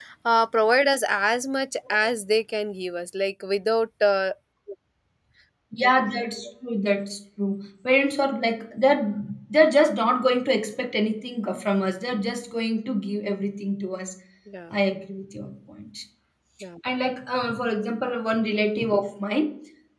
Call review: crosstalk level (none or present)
none